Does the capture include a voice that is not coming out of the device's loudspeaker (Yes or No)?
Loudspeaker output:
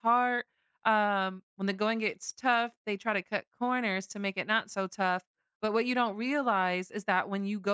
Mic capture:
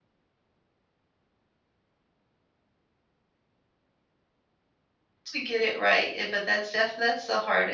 Yes